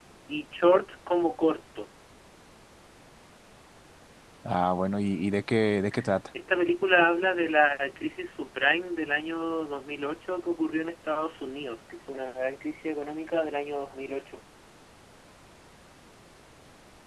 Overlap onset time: none

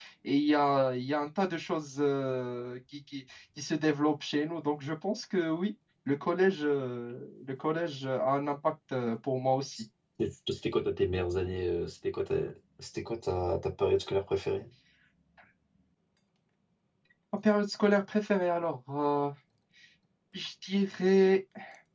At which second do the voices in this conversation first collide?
none

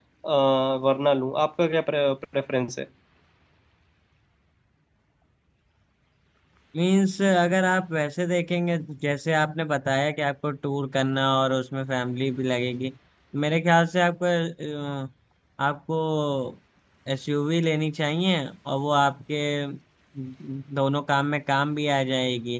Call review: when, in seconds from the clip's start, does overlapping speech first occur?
none

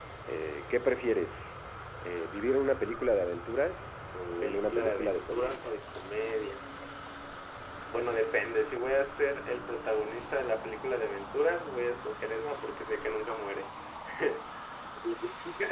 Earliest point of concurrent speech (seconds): 4.4 s

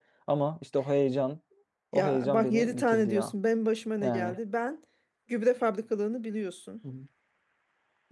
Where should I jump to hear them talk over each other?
1.9 s

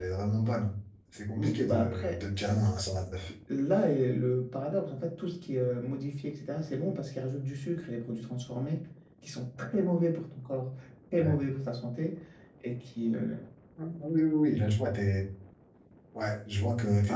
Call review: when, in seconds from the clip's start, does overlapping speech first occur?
1.4 s

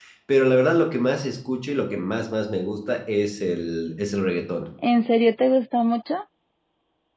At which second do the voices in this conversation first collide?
none

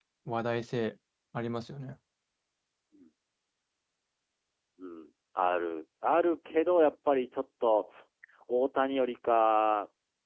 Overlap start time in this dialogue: none

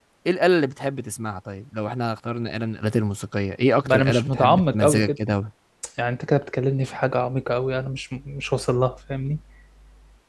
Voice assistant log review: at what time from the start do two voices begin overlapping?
3.8 s

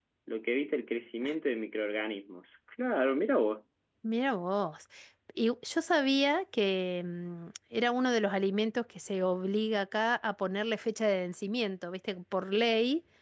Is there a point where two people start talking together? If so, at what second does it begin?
none

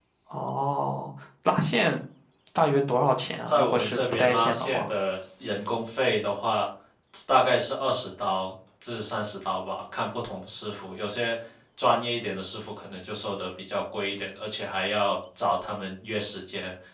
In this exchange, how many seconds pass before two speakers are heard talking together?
3.5 s

